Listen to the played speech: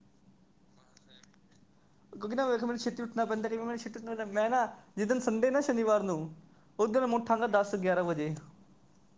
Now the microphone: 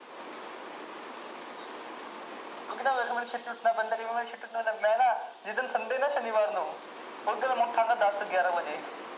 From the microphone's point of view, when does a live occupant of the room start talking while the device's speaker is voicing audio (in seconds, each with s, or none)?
none